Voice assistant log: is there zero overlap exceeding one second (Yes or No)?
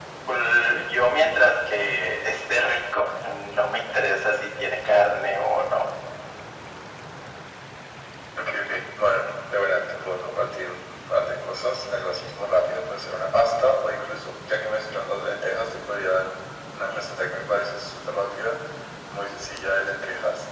Yes